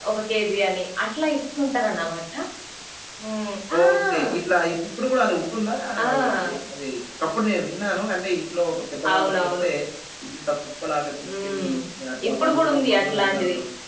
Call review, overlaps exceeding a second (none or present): present